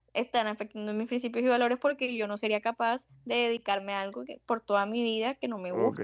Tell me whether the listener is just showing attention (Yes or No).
No